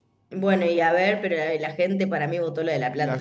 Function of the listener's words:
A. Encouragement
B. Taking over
B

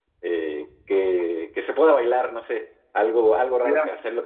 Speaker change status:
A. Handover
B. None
B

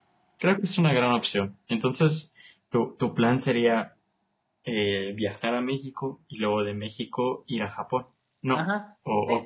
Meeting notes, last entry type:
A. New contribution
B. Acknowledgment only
A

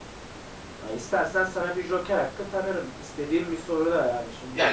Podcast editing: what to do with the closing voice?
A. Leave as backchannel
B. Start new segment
B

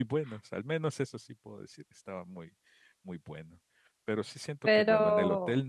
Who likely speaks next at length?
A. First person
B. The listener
A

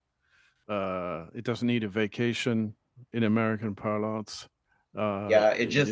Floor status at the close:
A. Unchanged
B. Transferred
B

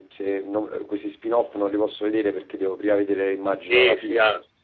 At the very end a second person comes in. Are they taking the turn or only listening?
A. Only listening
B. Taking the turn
B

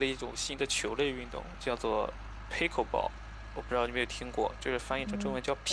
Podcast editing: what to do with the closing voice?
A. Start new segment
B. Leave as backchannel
A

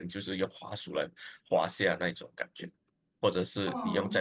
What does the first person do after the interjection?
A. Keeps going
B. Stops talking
A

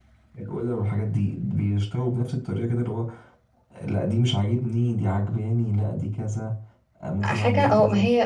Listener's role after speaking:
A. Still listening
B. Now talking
B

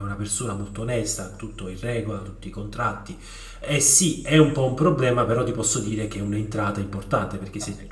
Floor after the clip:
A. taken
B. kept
B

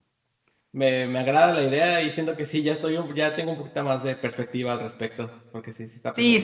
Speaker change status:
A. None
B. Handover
B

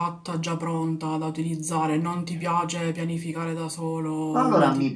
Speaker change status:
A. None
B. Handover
B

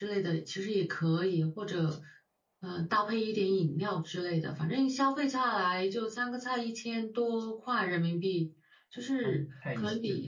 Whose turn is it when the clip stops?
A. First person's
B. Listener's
B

